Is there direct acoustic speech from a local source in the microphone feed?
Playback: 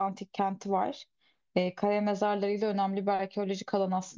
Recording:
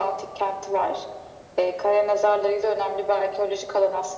No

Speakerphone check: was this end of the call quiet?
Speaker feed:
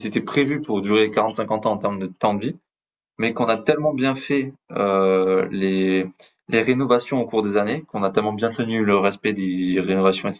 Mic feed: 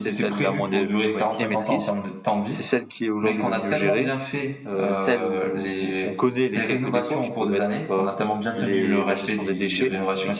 No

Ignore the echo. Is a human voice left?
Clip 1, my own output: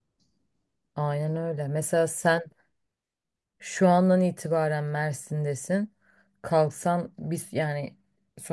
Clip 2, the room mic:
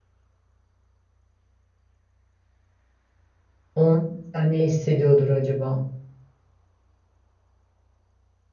Yes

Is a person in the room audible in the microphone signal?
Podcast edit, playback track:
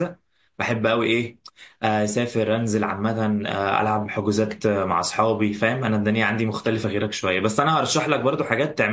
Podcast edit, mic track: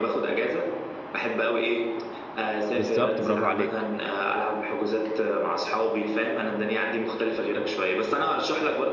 Yes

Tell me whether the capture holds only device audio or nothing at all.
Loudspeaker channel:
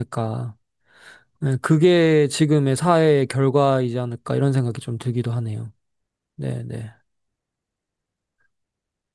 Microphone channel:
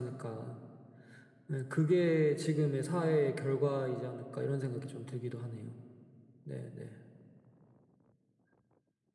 Yes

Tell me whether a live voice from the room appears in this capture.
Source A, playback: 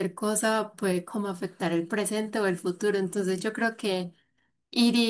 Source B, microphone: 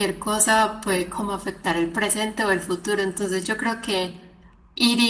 No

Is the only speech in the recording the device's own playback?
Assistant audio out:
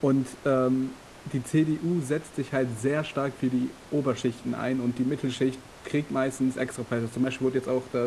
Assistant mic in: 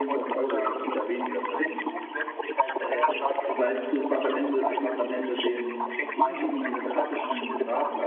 No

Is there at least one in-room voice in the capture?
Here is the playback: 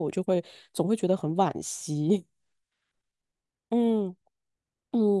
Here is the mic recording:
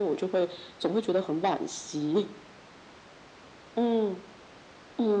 No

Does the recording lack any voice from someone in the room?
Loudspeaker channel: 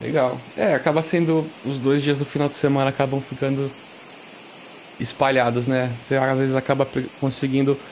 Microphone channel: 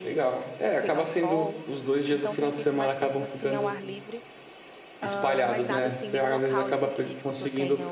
No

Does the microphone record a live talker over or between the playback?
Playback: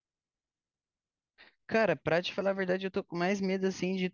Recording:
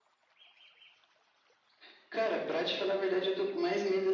No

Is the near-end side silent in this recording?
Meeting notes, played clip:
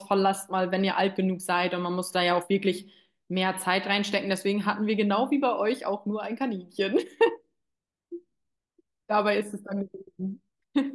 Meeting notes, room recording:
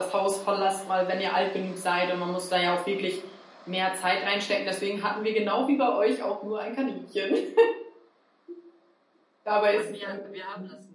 No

